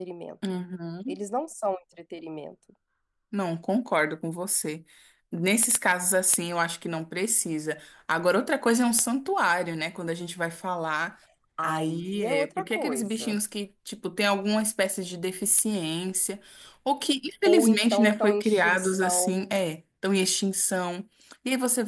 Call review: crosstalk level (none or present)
present